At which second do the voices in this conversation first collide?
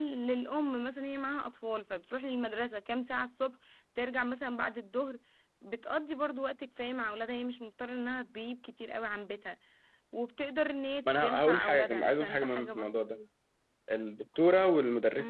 11.1 s

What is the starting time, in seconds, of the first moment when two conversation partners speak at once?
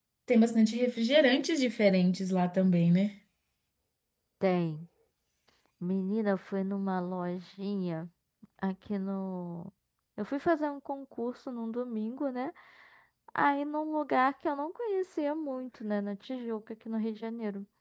none

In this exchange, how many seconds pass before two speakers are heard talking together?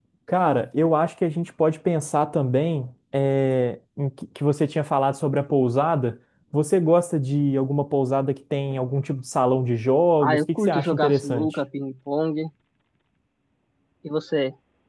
10.2 s

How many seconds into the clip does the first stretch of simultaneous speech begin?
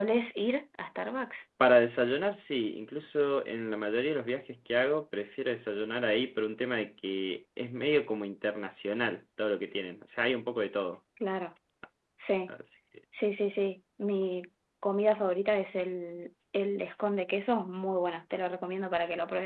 none

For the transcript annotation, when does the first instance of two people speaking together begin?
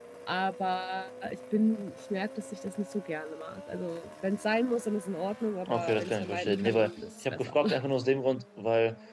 5.7 s

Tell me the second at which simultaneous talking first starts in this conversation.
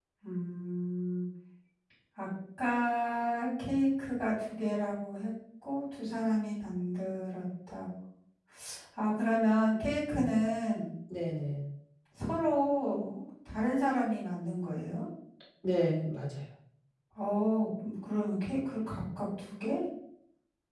none

